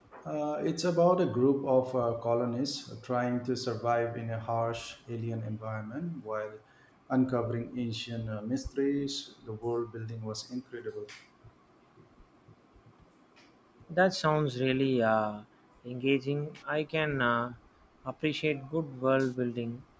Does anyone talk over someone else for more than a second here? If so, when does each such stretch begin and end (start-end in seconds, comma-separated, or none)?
none